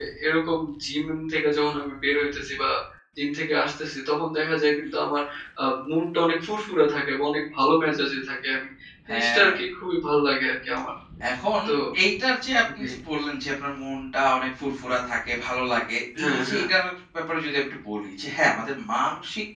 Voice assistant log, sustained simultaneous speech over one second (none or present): none